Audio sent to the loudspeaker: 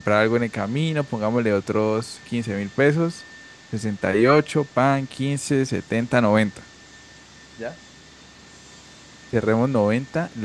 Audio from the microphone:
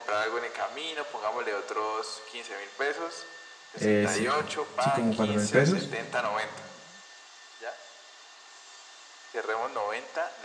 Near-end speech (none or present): present